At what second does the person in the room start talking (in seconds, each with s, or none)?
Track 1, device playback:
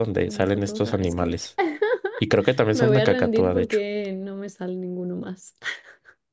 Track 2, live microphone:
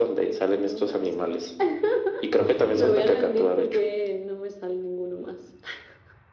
2.4 s